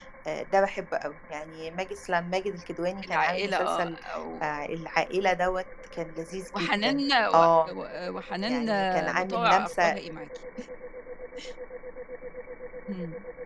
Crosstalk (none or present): present